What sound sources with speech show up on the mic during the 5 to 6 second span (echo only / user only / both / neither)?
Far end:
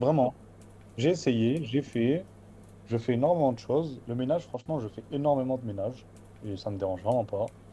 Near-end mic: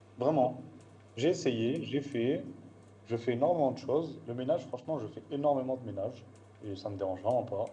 echo only